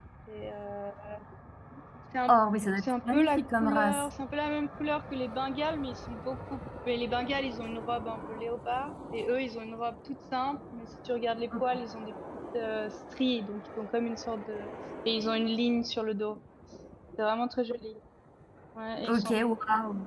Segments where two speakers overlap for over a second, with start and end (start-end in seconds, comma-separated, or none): 2.8-4.1